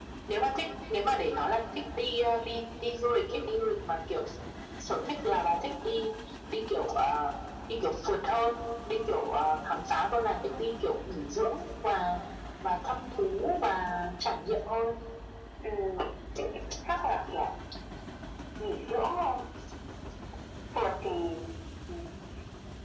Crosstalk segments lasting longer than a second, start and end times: none

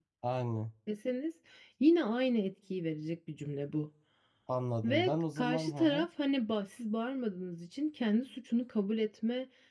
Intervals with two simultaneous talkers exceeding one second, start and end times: 4.8-6.0

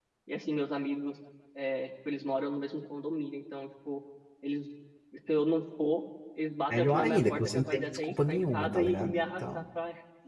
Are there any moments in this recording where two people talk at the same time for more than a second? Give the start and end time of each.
6.7-9.6

